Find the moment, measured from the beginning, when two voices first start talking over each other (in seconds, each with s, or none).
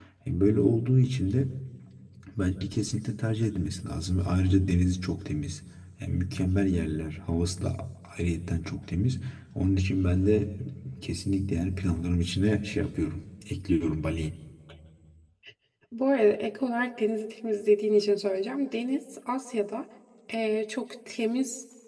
none